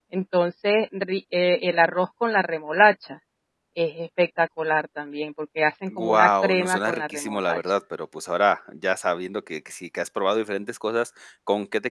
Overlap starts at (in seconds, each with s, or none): 5.9 s